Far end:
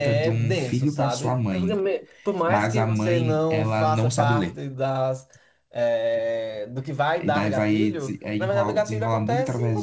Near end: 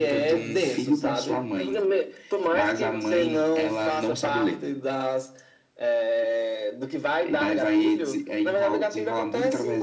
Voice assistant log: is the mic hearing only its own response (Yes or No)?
Yes